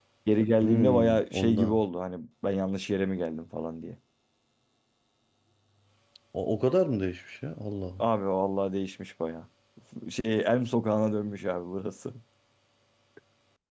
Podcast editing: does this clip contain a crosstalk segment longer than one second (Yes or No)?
Yes